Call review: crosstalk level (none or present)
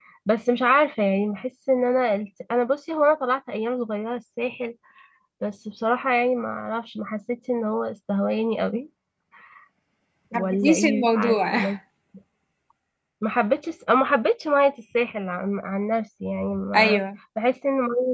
present